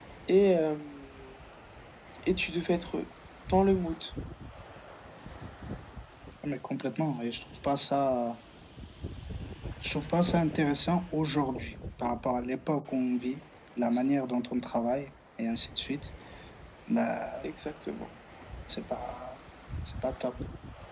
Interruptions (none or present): none